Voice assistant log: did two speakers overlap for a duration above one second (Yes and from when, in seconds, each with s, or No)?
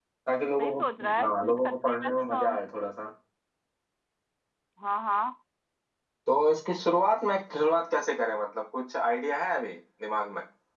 Yes, from 0.6 s